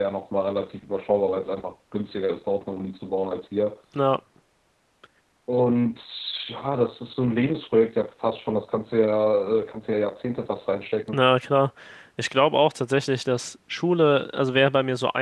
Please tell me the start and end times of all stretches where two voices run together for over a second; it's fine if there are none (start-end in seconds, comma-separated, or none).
none